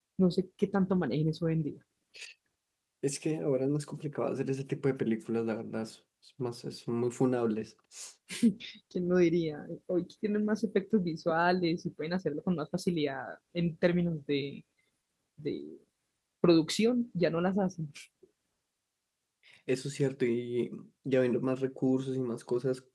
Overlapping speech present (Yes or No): No